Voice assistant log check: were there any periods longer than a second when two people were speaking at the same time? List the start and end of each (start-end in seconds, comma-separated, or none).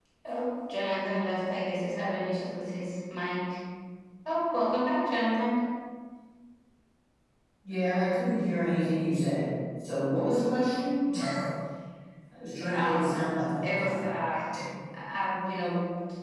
none